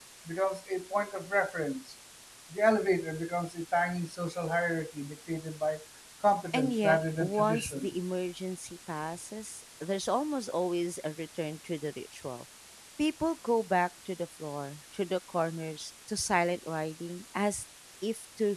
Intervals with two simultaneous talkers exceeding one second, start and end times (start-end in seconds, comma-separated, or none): 6.5-7.9